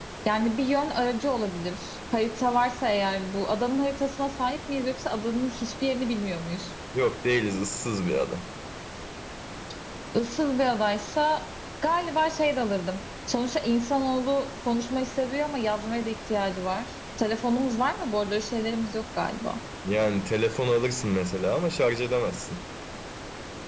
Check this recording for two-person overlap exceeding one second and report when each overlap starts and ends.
none

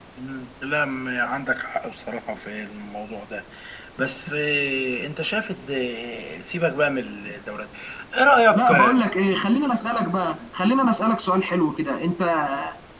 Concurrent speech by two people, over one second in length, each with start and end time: none

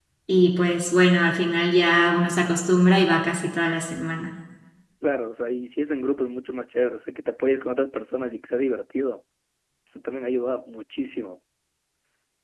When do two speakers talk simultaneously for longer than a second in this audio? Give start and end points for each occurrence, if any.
none

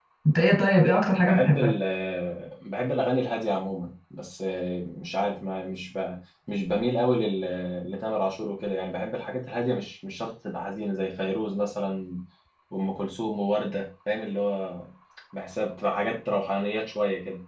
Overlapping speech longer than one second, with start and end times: none

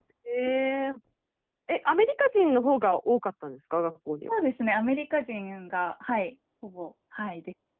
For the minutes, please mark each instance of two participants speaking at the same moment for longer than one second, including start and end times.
none

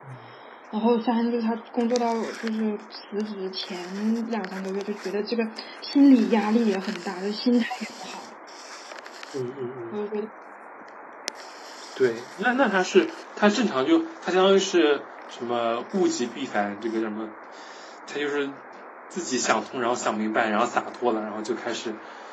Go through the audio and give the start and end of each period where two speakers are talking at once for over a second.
none

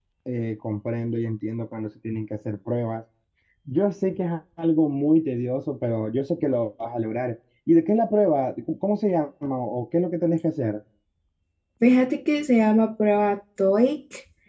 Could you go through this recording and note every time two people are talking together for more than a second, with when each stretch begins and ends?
none

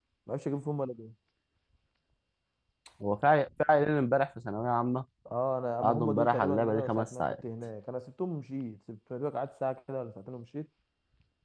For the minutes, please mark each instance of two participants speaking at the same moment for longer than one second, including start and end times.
5.8-7.4

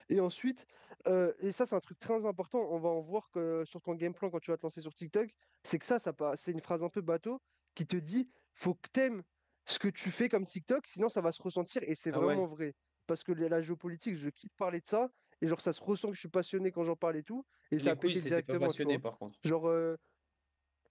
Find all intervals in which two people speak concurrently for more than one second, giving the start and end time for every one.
17.8-19.0

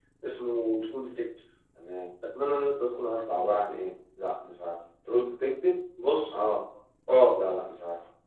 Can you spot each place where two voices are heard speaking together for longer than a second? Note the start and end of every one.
none

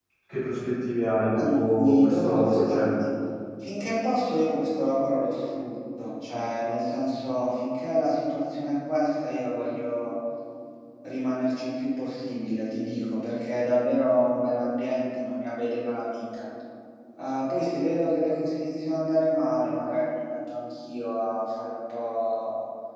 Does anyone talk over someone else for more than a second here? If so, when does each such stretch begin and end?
1.3-2.9

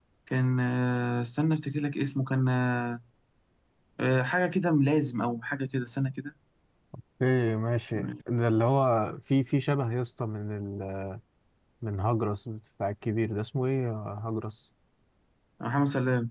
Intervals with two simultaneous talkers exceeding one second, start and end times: none

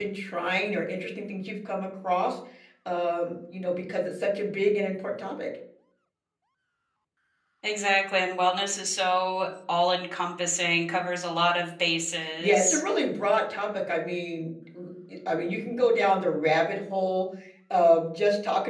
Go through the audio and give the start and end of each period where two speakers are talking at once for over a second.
none

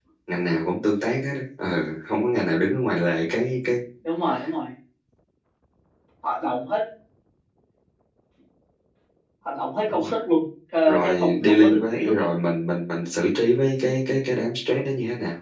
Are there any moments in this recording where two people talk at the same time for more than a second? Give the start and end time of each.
10.9-12.2

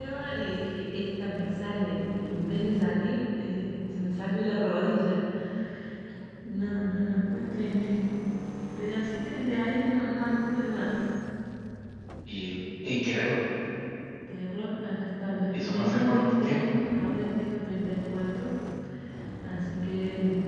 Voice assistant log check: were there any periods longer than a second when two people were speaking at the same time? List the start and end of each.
15.5-16.7

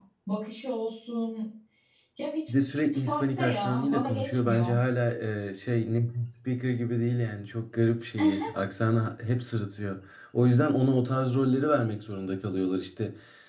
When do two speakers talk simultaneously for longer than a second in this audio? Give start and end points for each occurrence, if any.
2.9-4.7

